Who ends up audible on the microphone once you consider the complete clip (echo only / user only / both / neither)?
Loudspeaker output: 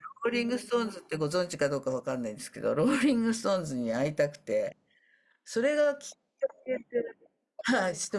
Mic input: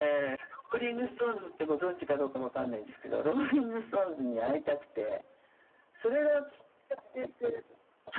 echo only